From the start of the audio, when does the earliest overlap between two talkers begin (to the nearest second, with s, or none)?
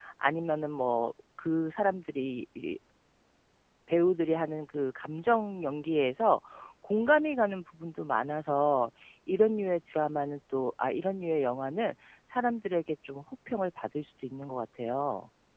none